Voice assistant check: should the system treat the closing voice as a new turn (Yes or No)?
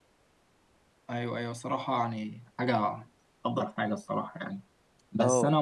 No